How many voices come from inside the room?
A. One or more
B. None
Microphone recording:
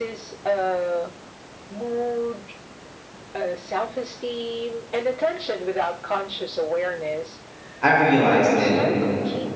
A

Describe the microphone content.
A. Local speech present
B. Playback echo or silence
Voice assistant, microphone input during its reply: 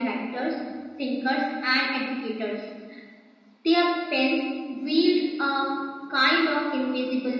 B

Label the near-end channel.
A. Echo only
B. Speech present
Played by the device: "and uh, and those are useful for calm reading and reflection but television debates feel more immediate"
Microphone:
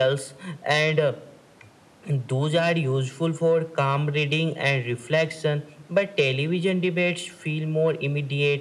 A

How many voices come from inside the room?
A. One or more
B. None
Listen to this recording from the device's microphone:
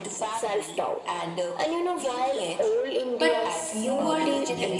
A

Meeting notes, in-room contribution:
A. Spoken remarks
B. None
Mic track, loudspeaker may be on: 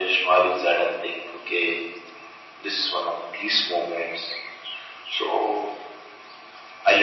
B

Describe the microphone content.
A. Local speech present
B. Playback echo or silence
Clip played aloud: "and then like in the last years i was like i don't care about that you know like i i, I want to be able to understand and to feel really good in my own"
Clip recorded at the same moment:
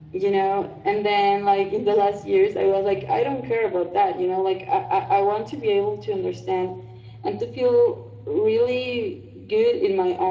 B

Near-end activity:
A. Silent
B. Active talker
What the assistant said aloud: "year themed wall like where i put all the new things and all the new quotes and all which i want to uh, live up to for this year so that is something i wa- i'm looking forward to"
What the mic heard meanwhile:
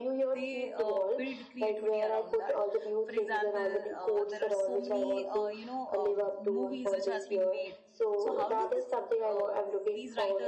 B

